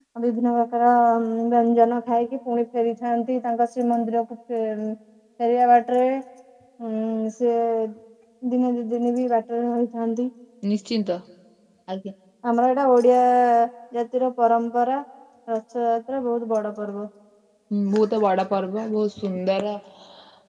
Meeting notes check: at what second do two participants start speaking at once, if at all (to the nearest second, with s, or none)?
none